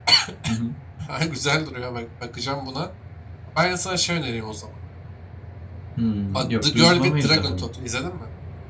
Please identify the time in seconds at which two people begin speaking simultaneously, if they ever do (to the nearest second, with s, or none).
6 s